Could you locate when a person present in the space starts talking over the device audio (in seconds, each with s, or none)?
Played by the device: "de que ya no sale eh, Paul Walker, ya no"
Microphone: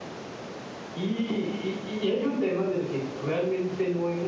0.9 s